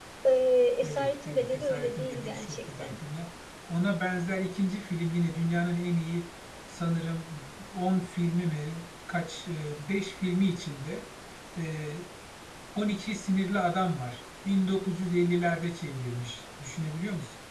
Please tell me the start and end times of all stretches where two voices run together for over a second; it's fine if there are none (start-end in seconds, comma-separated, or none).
0.8-2.9